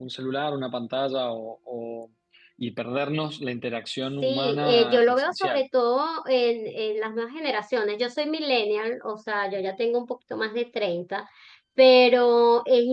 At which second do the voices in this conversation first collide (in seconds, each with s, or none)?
4.2 s